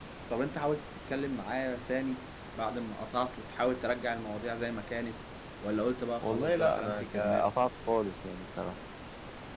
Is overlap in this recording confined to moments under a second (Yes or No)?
No